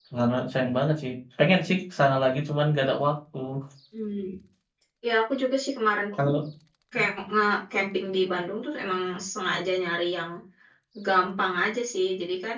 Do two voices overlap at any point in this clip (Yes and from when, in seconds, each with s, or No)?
No